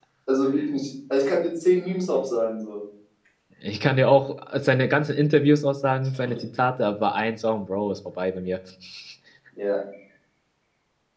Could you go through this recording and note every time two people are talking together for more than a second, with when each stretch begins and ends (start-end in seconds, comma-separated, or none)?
none